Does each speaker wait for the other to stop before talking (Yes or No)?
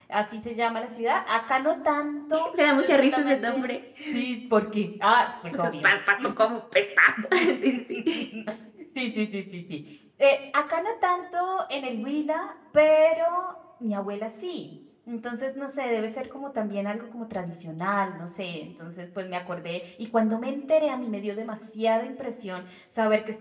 No